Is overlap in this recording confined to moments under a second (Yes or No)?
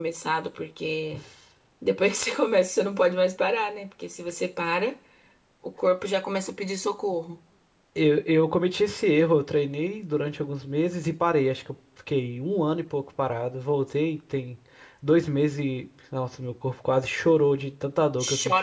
Yes